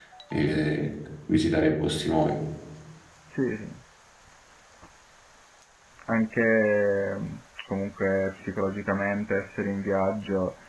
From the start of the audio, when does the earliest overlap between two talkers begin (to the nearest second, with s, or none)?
none